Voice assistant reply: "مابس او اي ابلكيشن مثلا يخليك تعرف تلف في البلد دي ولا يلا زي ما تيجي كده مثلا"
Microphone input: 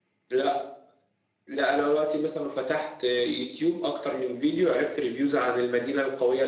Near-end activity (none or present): present